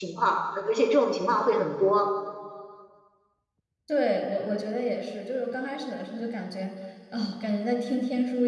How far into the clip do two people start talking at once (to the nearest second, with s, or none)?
none